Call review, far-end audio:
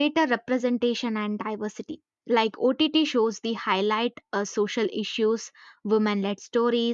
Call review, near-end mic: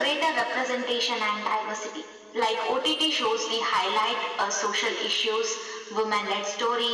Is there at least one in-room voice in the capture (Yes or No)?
No